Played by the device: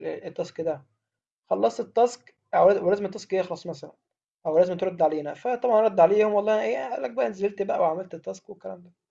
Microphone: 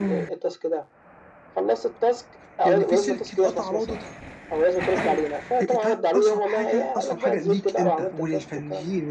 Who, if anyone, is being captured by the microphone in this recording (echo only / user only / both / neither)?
both